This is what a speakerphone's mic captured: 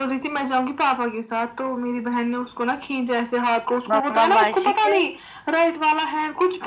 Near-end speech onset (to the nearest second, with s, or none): 4 s